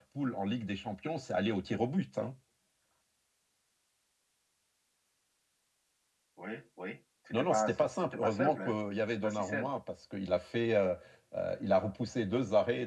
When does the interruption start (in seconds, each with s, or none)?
7.3 s